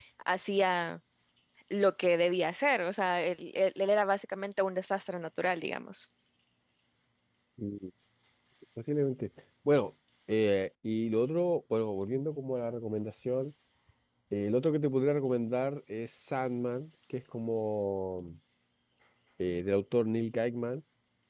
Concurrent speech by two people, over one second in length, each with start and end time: none

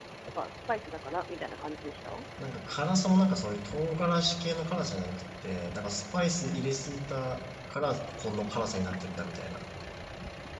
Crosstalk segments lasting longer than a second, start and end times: none

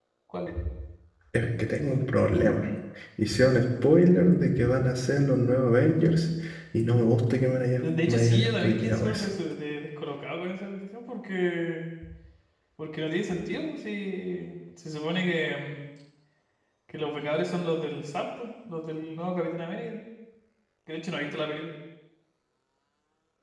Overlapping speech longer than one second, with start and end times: 7.8-9.3

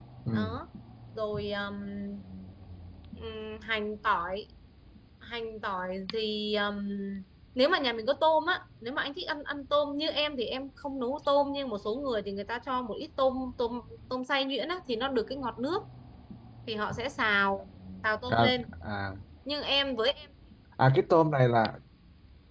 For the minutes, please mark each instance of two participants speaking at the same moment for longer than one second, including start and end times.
none

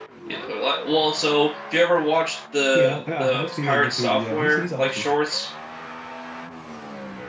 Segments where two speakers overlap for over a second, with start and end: 2.8-5.0

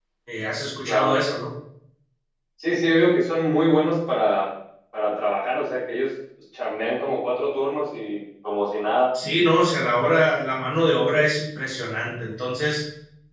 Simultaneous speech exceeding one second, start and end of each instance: none

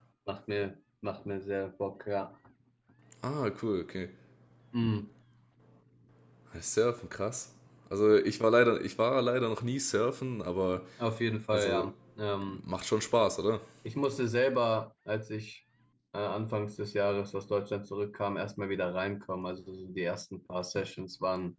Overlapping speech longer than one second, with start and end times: none

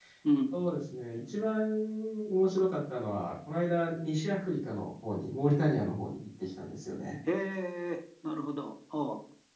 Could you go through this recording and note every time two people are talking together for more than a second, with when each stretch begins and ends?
none

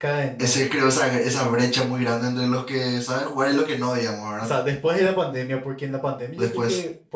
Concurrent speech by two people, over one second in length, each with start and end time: none

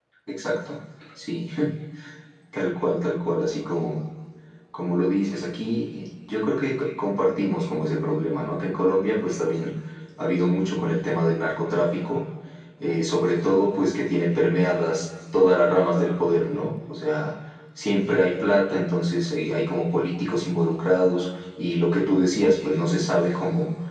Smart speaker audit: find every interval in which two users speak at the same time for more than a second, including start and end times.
none

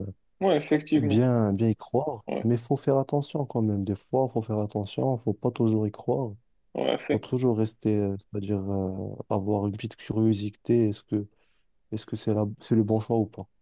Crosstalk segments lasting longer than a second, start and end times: none

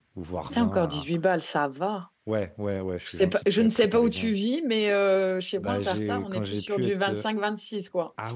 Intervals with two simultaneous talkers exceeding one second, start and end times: 3.0-4.3, 5.6-7.2

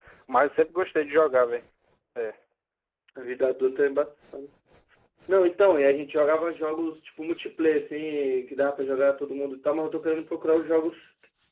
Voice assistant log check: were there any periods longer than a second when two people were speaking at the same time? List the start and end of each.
none

